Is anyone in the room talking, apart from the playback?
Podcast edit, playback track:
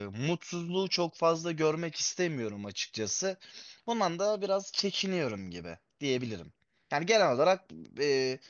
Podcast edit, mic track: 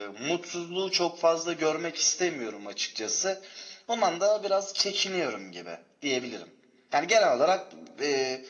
No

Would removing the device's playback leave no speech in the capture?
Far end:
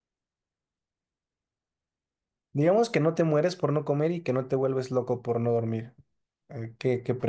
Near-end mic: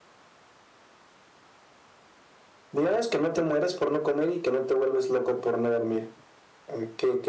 Yes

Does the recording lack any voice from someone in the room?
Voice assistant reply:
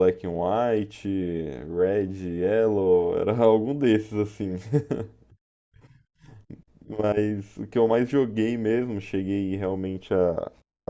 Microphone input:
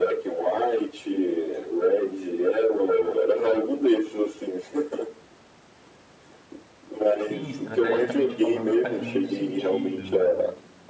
No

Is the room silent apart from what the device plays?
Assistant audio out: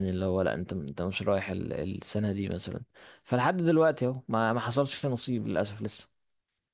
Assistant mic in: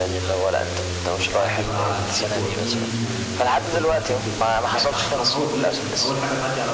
No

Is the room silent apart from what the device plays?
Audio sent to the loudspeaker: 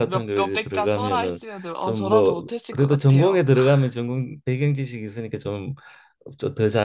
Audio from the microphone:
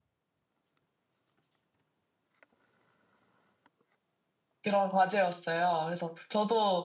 No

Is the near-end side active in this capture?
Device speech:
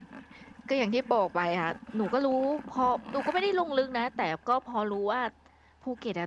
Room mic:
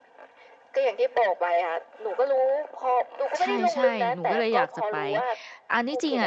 Yes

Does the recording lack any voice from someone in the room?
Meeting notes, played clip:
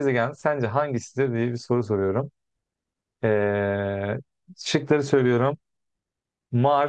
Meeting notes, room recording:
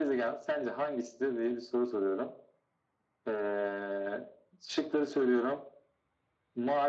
Yes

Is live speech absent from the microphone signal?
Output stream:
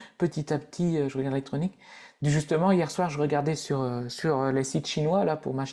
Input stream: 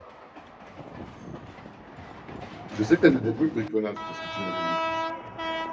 No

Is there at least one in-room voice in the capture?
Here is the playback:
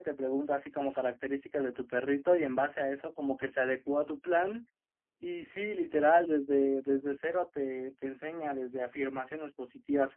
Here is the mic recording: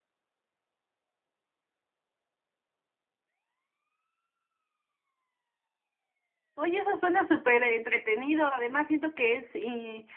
Yes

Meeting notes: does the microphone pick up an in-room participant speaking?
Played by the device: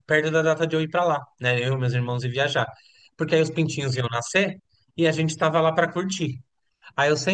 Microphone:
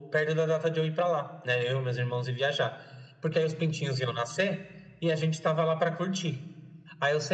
No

